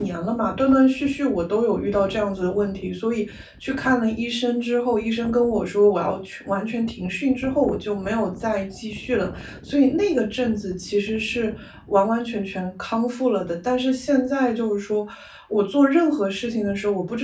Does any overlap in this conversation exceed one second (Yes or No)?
No